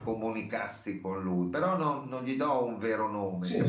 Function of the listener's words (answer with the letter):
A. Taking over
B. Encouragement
A